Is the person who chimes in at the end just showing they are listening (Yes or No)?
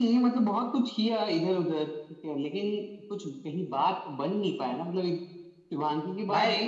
Yes